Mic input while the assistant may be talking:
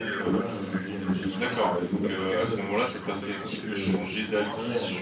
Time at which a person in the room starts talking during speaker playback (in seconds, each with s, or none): 1.4 s